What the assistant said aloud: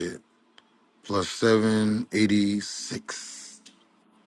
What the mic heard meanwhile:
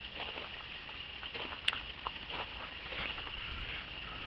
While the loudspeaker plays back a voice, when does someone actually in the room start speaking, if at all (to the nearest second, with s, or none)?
none